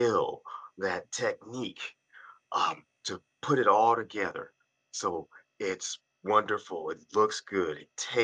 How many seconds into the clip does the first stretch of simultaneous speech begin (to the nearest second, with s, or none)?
none